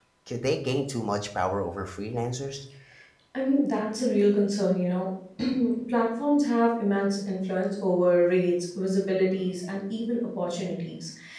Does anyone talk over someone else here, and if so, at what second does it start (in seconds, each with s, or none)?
none